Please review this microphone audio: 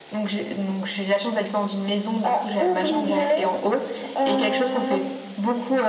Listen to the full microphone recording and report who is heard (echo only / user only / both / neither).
echo only